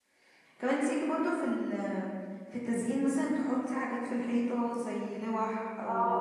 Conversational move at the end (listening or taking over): taking over